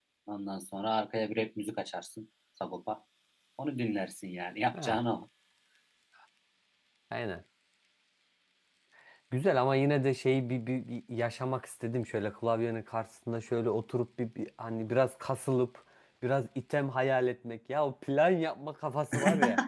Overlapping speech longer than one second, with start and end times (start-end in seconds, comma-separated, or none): none